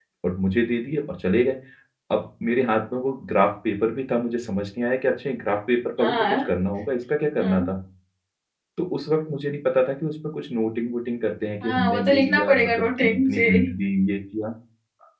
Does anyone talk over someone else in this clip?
Yes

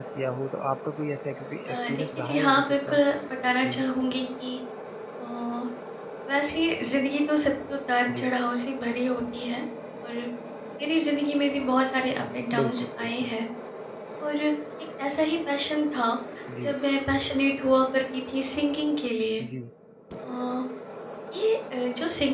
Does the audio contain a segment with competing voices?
Yes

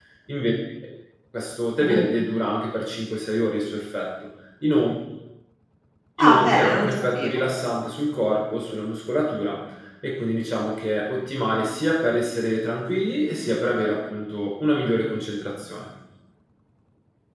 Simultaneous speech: Yes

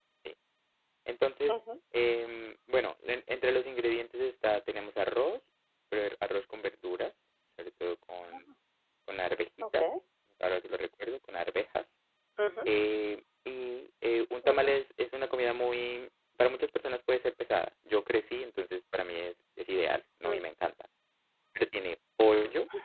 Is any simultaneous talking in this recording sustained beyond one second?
No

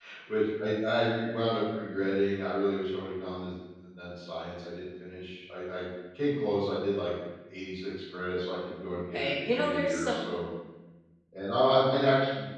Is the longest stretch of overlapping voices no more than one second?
No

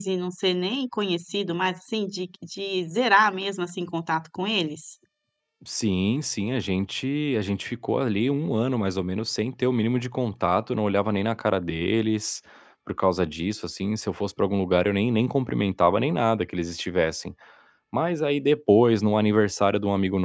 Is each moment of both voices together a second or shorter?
Yes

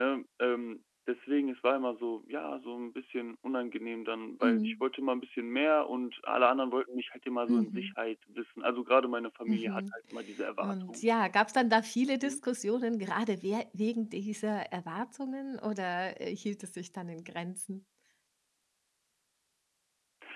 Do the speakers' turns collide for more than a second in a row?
No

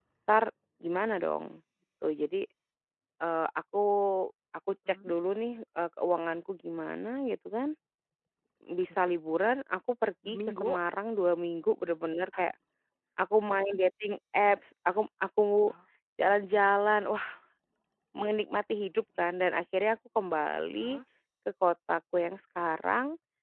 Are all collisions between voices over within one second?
Yes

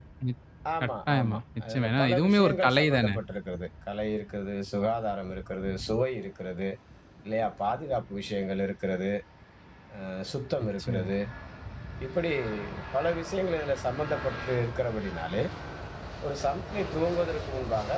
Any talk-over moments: Yes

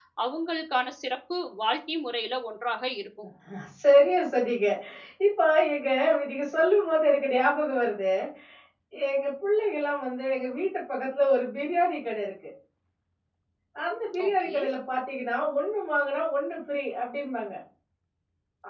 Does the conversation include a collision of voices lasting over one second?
No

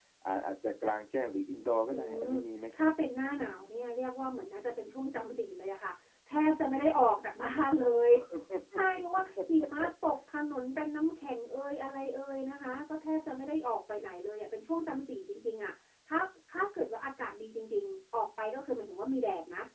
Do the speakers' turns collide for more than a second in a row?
No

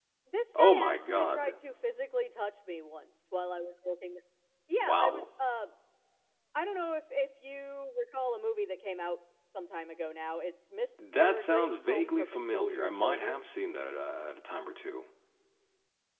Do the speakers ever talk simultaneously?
Yes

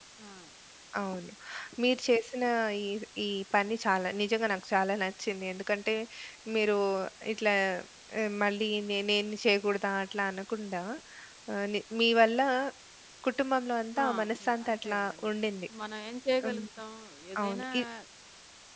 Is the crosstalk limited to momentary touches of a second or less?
No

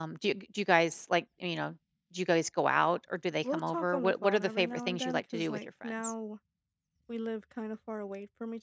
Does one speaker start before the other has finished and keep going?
Yes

